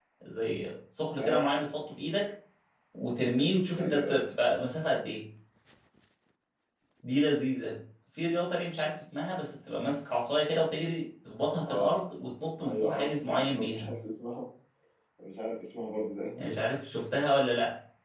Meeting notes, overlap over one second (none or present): present